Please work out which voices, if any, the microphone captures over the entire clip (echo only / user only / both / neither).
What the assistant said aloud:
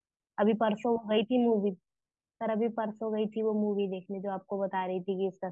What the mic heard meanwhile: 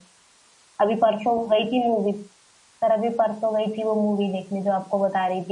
echo only